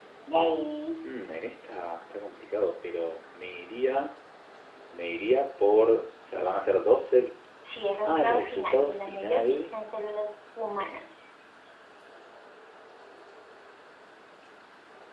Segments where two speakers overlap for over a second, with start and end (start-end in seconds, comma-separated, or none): 8.0-9.7